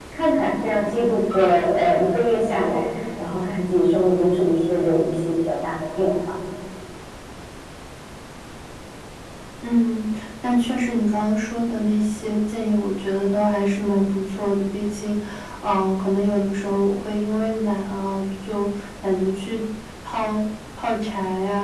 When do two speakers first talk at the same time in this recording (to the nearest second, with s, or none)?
none